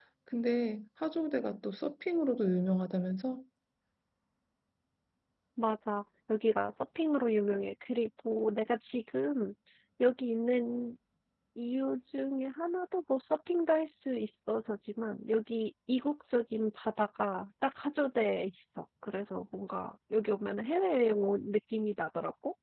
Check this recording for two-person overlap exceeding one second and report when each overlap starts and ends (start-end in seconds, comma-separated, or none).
none